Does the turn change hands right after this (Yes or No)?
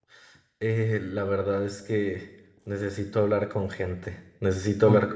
No